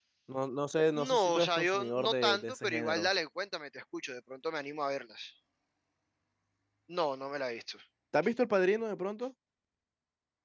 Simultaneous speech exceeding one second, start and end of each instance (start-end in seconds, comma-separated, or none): 1.1-3.1